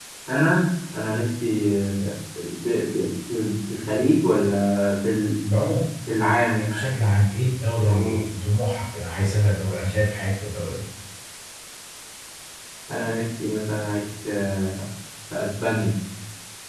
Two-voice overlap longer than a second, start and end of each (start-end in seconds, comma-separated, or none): none